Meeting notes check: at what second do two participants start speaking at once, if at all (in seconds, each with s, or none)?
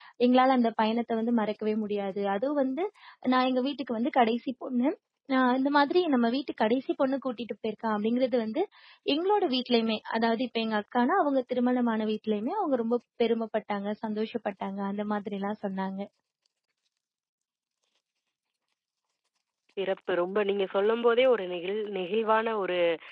none